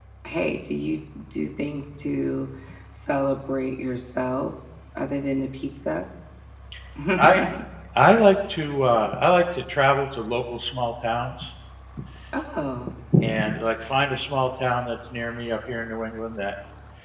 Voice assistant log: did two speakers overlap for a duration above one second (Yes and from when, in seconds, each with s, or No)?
No